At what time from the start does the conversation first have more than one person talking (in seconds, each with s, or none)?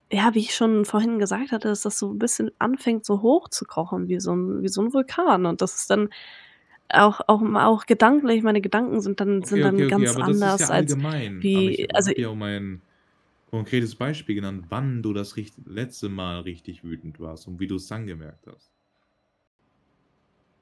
9.4 s